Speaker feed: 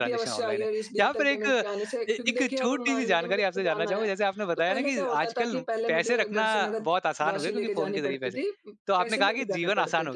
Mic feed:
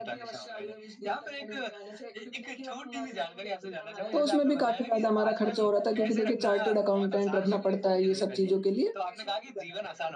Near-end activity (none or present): present